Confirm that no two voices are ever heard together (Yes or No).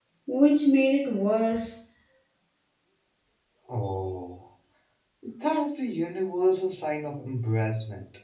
Yes